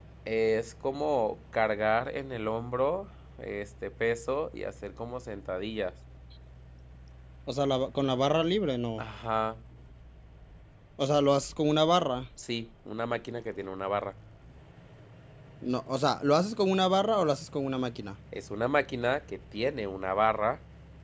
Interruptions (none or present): none